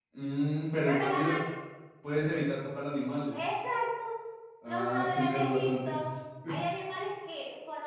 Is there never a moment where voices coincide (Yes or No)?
No